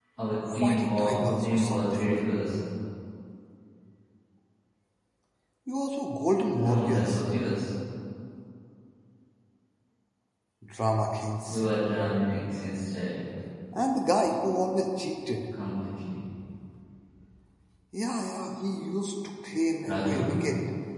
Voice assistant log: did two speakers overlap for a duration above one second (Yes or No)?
Yes